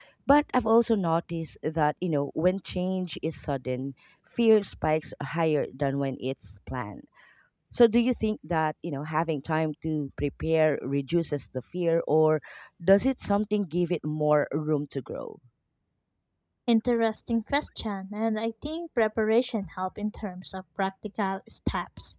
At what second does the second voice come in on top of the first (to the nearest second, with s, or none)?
none